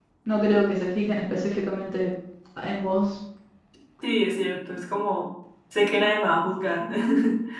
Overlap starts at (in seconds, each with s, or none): none